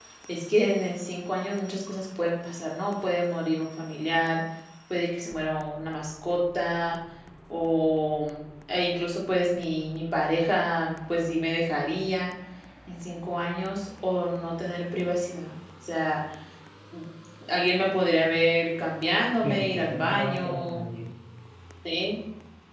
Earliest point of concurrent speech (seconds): 19.4 s

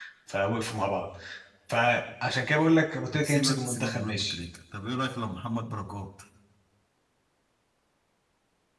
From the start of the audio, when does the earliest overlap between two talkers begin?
3.1 s

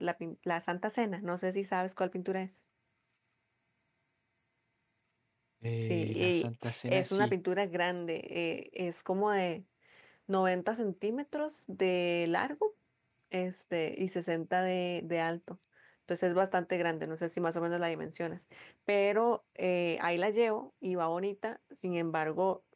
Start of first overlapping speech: 5.8 s

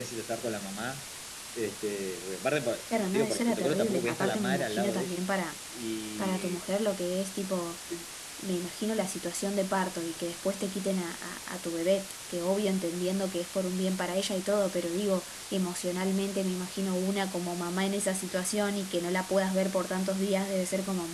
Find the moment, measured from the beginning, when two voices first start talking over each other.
2.9 s

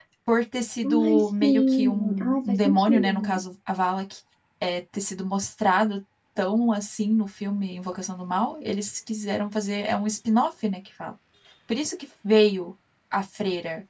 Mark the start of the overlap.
1.0 s

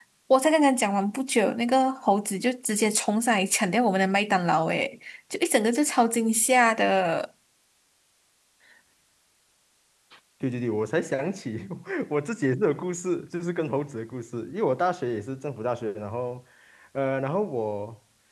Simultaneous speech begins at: none

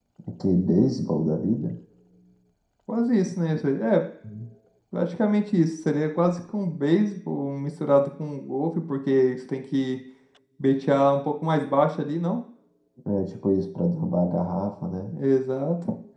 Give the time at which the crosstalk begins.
none

